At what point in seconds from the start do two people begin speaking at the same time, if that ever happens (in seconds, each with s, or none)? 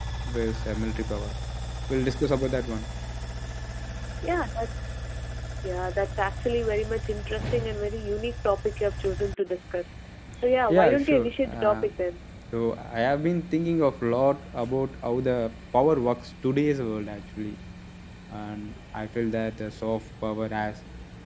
10.7 s